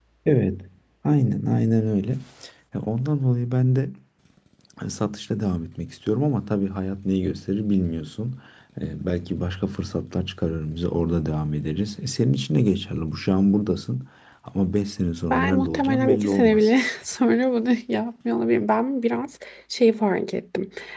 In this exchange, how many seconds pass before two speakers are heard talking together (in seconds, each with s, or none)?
15.3 s